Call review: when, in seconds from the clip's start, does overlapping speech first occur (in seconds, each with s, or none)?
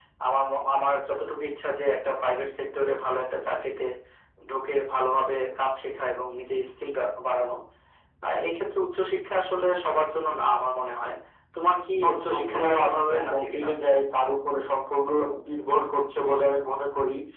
12.0 s